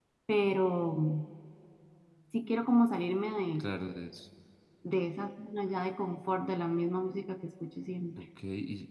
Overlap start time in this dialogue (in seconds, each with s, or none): none